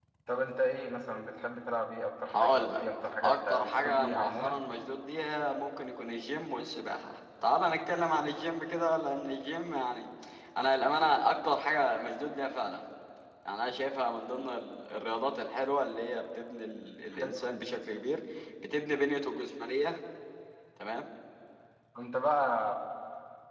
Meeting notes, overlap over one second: present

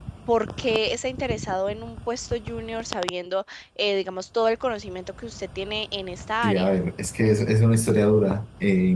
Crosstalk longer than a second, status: none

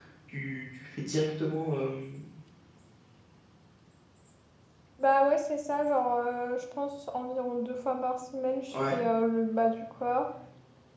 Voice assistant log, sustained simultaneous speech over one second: none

